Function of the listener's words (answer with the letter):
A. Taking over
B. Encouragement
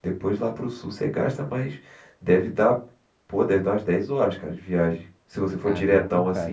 A